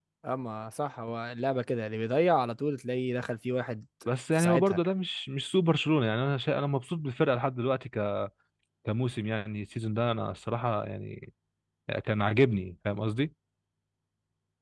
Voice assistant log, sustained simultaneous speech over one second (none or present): none